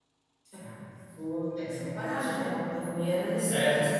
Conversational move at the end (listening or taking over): taking over